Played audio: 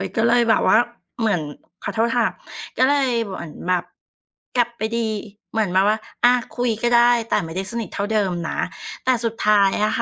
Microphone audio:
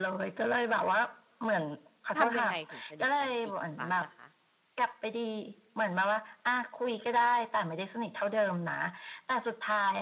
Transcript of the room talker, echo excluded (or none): ทำยังไงถึงสนิทกันอีกครั้งล่ะคะ